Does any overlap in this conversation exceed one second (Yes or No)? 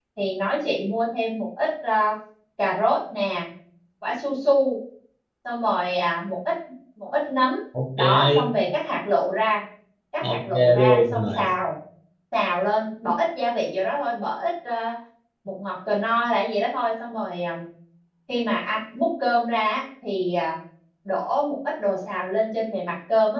Yes